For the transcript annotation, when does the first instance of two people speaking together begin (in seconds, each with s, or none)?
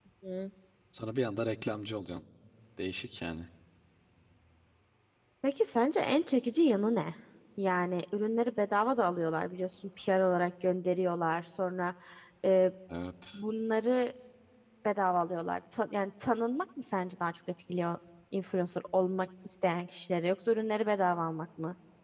none